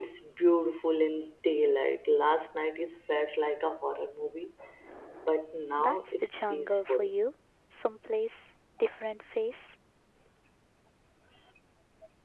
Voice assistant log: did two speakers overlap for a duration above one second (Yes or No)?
Yes